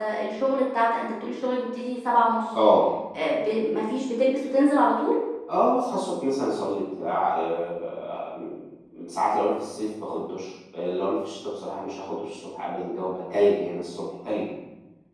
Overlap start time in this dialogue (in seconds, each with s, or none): none